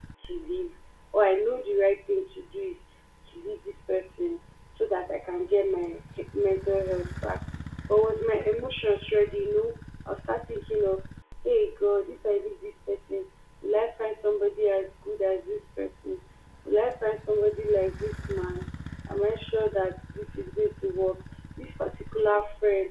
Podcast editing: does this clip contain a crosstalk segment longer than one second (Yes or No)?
No